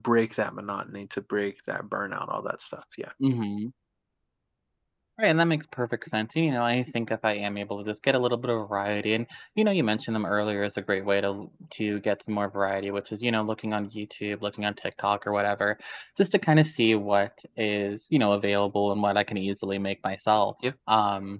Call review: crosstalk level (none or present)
none